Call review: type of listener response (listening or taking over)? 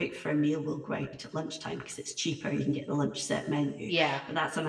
listening